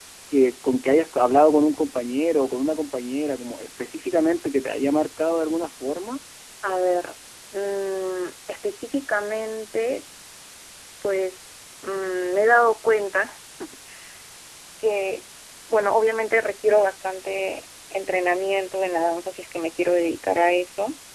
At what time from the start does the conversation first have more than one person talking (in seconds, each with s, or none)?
none